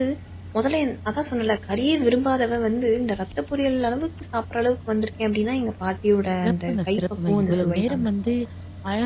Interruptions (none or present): present